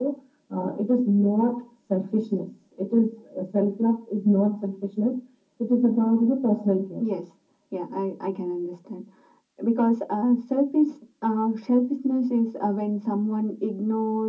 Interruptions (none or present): none